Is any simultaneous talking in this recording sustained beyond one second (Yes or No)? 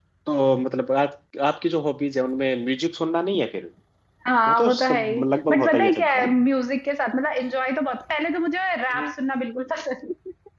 Yes